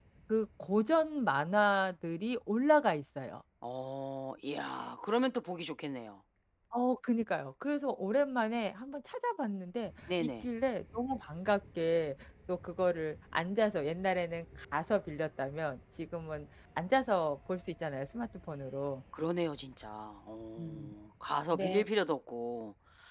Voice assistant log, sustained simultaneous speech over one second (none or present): none